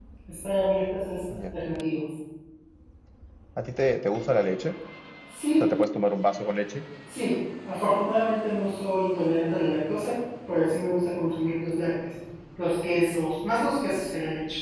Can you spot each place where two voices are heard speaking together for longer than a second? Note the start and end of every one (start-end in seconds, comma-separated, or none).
none